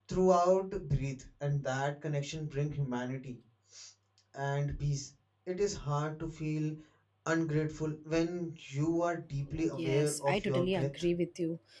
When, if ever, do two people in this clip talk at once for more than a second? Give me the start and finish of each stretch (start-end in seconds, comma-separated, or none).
9.8-11.1